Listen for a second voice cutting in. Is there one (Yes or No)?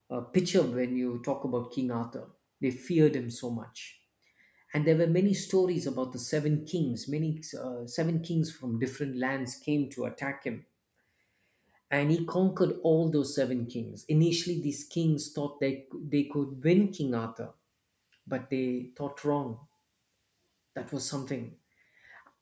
No